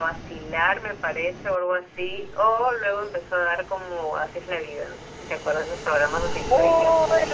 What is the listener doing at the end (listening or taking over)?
taking over